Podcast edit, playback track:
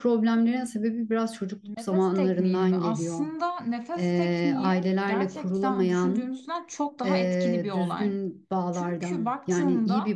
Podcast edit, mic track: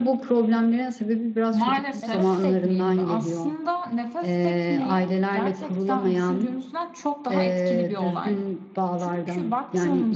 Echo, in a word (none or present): present